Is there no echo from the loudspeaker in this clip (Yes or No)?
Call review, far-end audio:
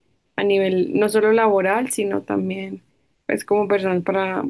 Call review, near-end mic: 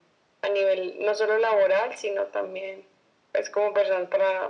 No